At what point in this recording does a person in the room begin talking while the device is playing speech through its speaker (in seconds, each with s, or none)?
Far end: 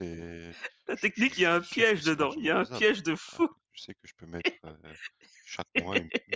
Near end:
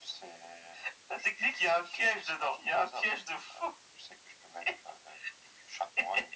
none